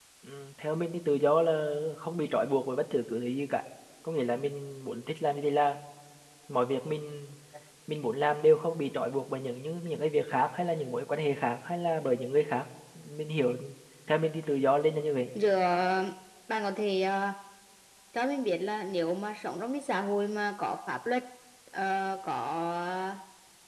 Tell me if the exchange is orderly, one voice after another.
Yes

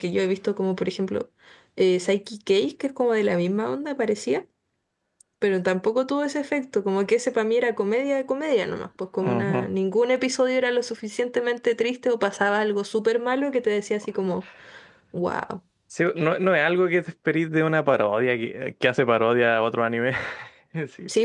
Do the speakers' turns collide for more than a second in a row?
No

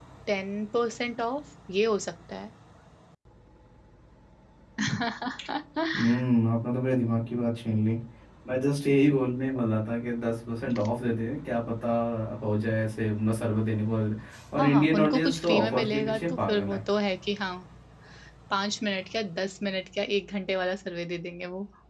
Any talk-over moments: Yes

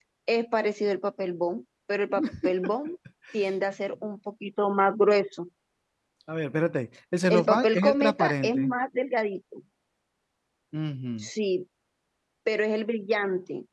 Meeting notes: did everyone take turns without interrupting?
No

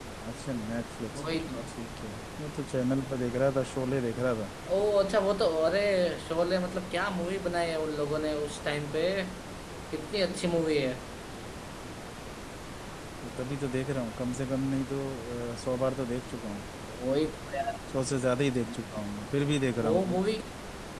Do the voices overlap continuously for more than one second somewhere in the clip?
No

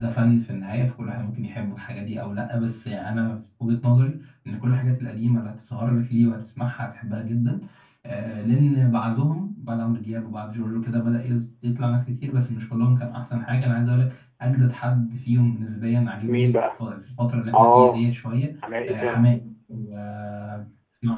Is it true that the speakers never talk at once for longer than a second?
Yes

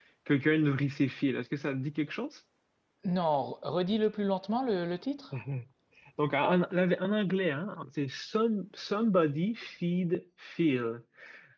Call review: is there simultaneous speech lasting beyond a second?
No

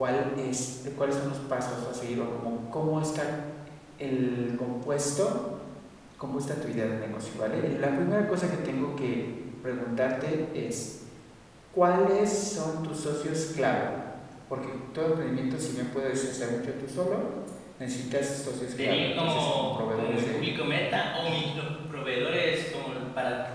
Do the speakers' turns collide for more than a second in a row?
Yes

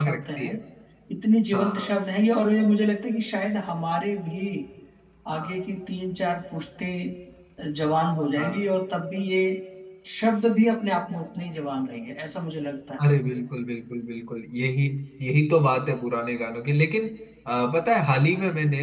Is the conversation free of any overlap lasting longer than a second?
Yes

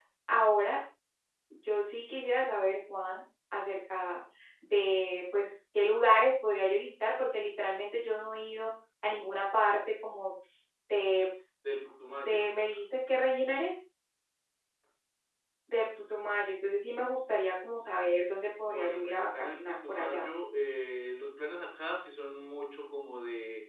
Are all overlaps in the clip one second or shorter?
No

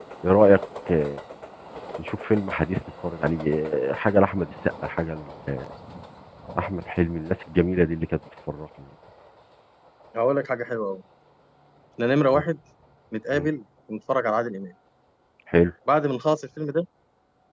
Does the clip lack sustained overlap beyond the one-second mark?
Yes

